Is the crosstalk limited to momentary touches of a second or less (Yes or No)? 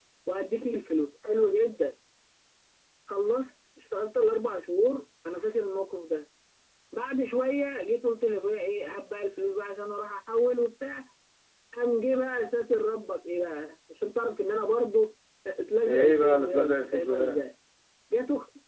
No